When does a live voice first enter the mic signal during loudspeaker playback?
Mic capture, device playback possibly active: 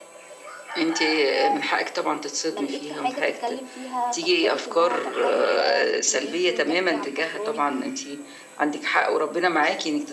2.5 s

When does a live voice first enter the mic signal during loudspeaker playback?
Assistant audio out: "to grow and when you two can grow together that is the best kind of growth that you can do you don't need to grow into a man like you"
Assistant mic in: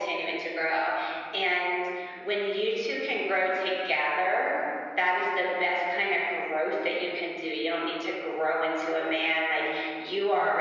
none

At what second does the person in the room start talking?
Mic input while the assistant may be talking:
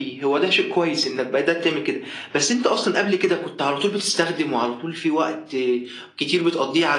none

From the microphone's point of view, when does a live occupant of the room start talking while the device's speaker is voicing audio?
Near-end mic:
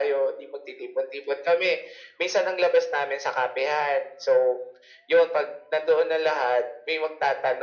none

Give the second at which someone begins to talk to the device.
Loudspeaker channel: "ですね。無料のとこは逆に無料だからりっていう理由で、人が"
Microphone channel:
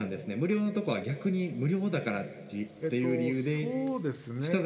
2.8 s

